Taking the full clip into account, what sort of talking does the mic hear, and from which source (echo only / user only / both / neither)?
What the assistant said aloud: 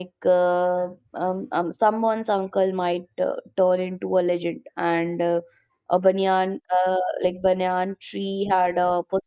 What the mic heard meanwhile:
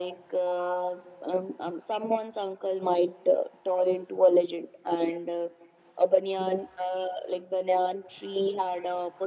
echo only